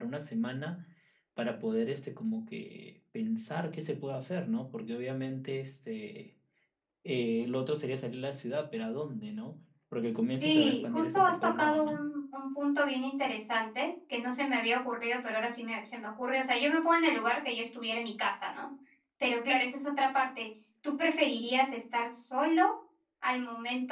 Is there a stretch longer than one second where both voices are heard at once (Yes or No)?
Yes